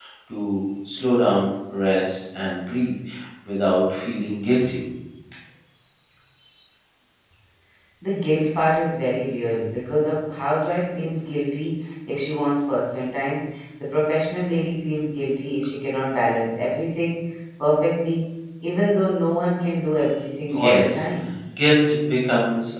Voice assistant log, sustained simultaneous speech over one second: none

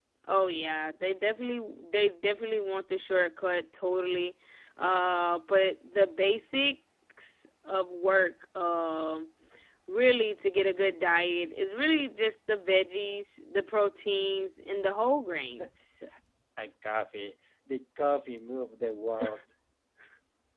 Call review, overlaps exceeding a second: none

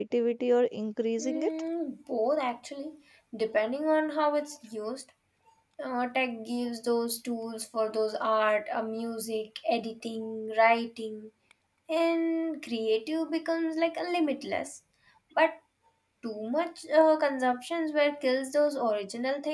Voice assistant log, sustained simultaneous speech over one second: none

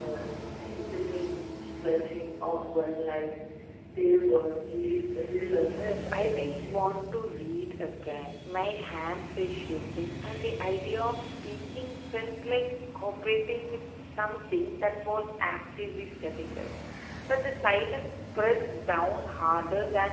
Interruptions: present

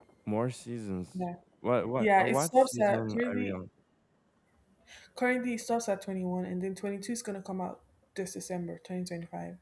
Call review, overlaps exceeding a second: present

